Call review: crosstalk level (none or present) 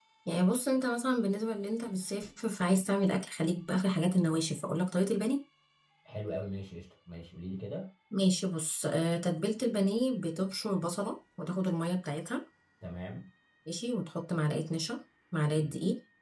none